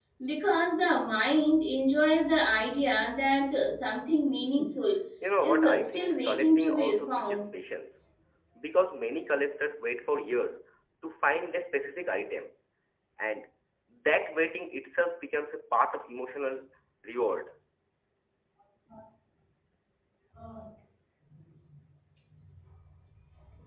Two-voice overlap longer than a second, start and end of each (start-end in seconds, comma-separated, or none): 5.4-7.4